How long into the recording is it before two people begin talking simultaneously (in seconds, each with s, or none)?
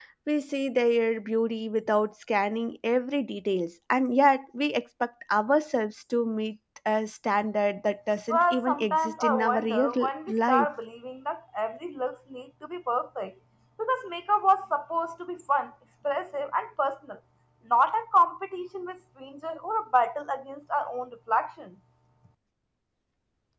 8.3 s